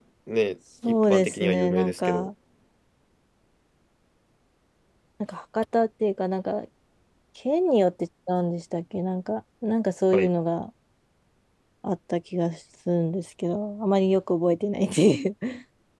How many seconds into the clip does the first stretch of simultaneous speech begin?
0.9 s

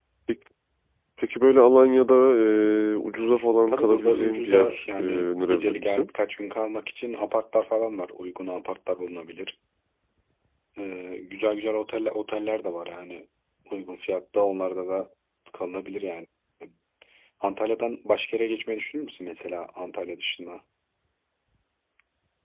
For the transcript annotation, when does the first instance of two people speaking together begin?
3.7 s

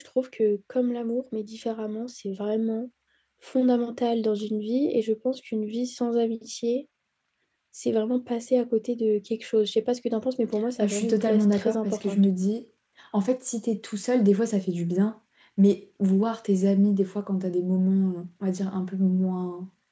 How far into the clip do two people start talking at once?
10.8 s

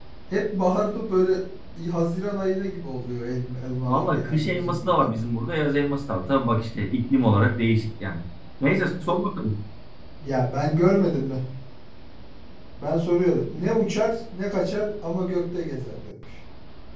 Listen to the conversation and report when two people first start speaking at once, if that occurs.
3.9 s

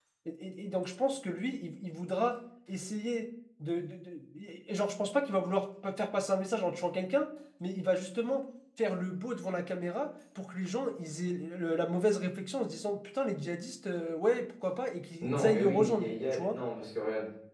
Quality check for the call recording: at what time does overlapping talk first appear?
15.2 s

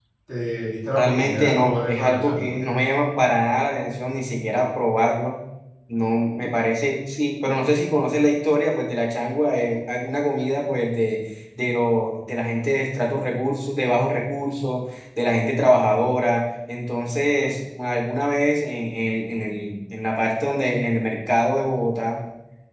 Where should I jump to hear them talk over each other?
0.9 s

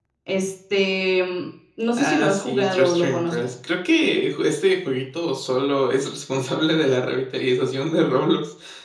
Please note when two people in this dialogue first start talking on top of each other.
1.9 s

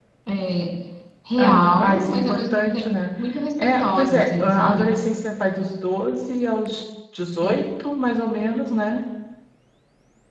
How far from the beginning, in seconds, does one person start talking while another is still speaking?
1.4 s

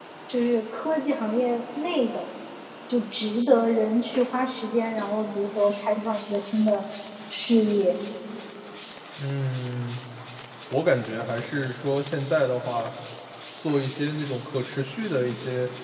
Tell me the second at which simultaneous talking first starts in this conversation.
none

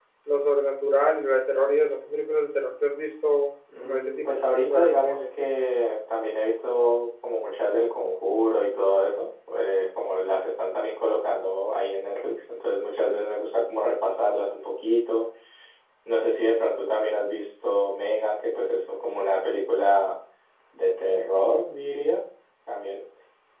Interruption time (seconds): 3.7 s

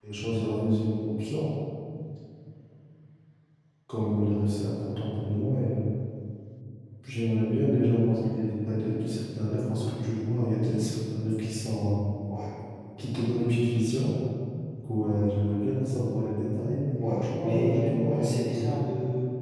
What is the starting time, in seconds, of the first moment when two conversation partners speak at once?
17.0 s

